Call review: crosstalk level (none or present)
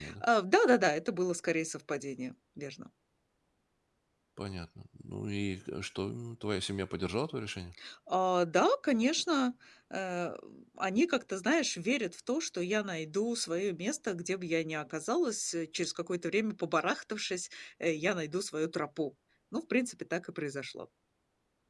none